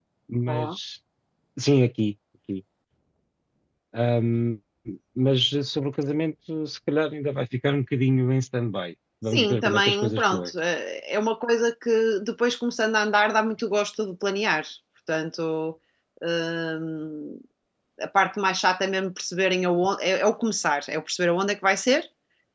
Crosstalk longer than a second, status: present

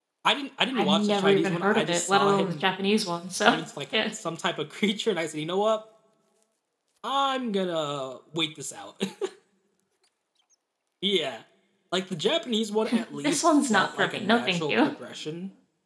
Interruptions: present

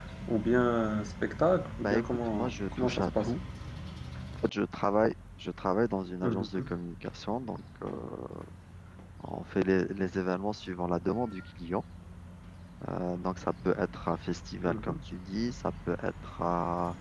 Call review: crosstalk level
present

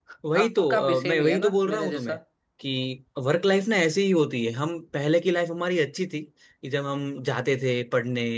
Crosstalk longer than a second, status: present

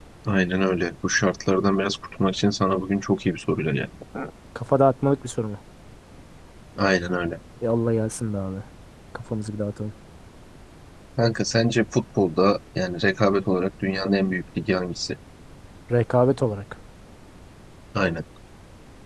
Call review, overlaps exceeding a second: none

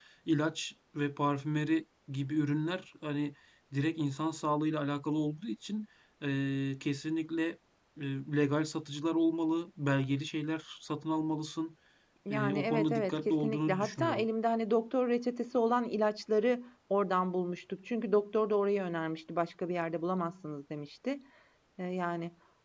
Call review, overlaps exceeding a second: present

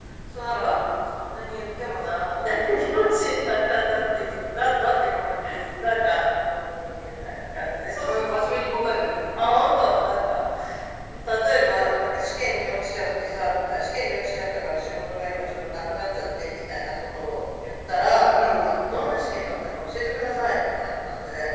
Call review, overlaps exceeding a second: none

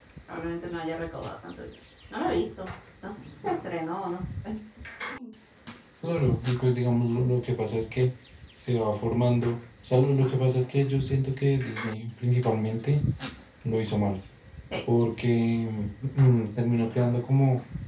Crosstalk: none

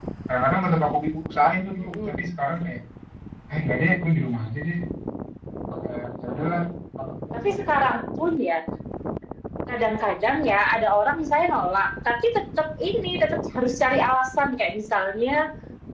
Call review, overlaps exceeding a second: none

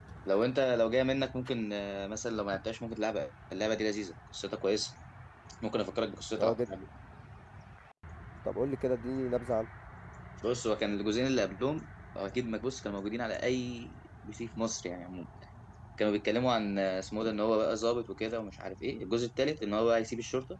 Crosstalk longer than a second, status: none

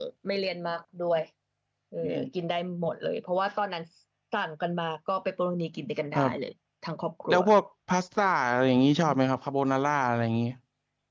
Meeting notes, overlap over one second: none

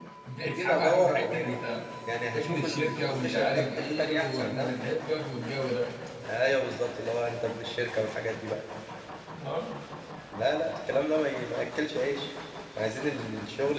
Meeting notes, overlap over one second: present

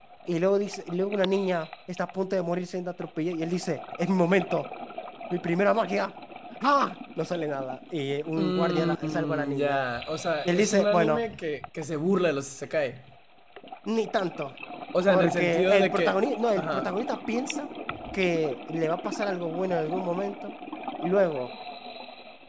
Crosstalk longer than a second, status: present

